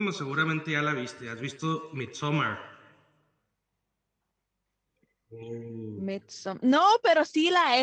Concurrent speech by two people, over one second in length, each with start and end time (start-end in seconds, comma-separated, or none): none